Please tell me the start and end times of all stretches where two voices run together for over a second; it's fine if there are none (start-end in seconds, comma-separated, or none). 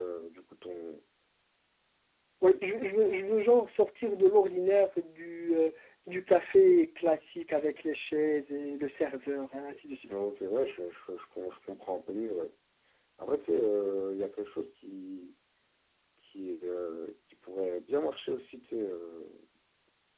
none